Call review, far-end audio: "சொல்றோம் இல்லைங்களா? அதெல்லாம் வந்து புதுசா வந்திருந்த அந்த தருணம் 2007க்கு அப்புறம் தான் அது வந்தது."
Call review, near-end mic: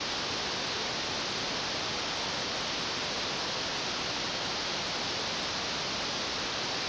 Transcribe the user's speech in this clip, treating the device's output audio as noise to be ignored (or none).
none